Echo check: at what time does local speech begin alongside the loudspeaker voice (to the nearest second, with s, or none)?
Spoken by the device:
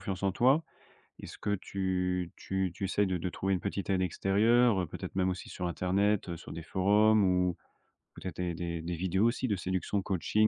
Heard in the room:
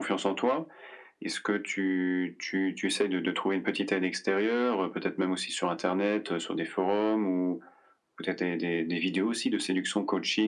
none